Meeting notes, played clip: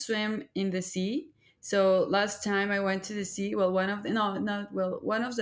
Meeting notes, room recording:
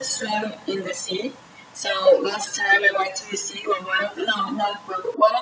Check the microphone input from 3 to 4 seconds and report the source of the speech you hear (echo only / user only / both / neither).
echo only